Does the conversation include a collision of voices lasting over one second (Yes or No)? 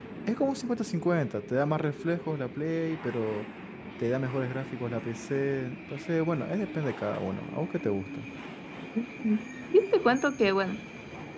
No